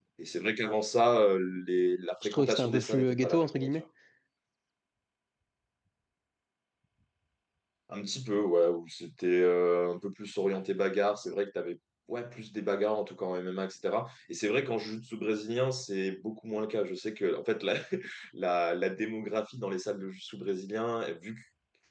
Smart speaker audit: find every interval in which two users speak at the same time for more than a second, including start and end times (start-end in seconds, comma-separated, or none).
2.2-3.8